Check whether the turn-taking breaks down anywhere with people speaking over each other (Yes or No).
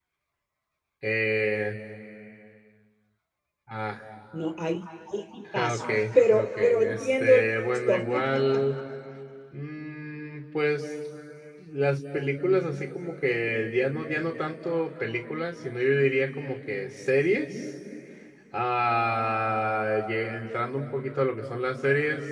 Yes